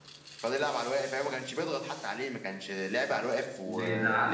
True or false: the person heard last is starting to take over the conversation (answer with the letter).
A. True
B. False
A